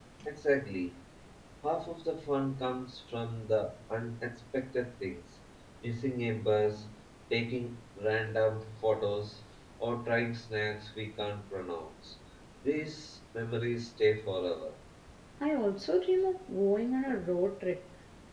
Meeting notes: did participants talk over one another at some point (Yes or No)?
No